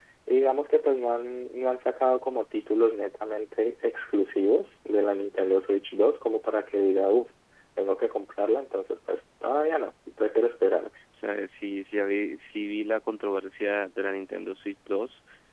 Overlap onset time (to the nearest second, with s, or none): none